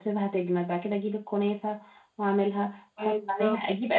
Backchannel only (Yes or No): Yes